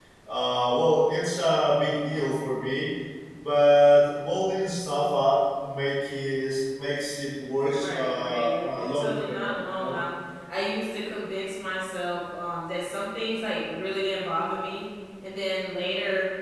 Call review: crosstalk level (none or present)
present